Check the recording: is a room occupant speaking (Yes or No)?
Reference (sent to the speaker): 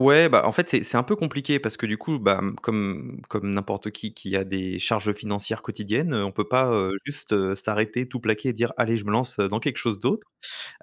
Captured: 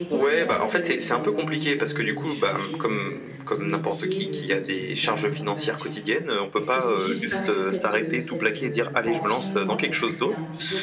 Yes